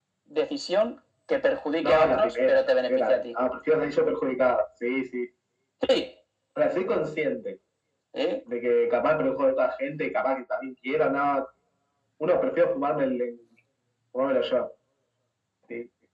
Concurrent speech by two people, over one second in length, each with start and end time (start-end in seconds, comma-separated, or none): 1.9-3.2